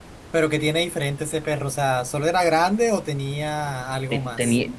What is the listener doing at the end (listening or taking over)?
taking over